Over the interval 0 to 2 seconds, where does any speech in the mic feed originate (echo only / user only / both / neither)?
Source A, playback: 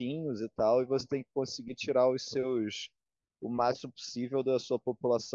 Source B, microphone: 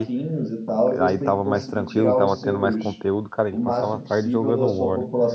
both